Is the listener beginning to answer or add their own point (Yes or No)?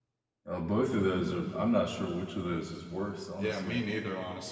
Yes